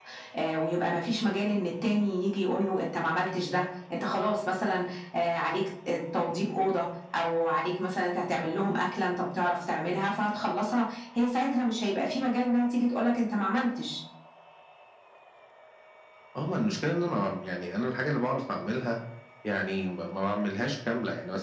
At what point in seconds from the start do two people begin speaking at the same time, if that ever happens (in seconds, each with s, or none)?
none